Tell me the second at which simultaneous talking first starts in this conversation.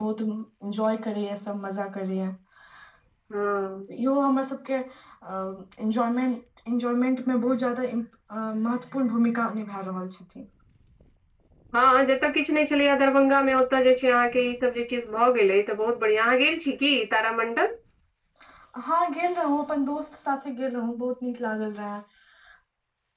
none

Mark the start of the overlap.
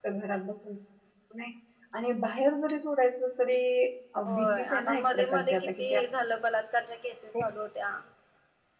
4.3 s

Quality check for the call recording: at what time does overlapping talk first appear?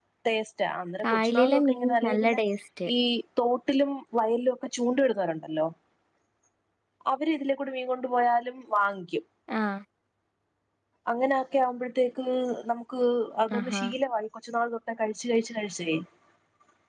1.0 s

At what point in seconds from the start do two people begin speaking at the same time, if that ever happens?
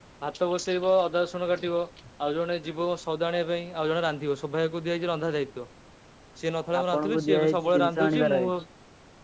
6.8 s

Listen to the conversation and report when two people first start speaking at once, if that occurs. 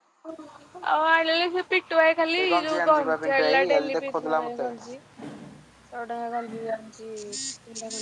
2.4 s

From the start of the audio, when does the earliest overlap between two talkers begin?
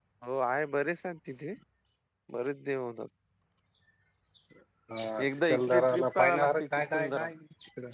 5.3 s

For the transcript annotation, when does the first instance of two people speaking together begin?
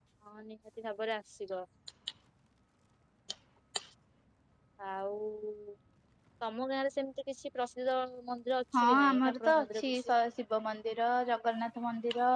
8.7 s

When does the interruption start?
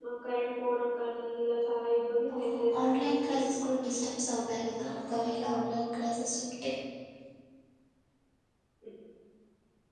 2.3 s

